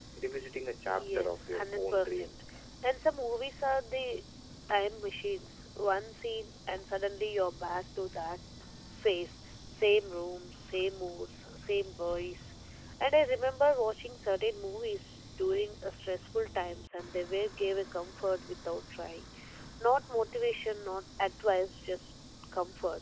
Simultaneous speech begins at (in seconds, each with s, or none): 0.9 s